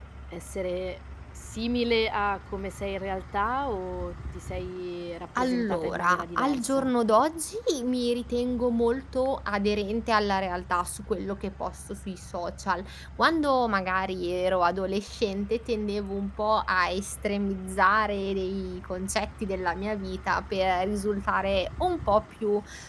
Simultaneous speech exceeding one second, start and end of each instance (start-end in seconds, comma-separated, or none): 5.4-6.9